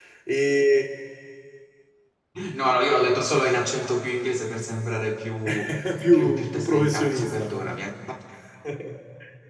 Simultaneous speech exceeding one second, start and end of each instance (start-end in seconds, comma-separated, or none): 6.1-7.5